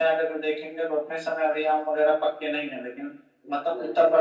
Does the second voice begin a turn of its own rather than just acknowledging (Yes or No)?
No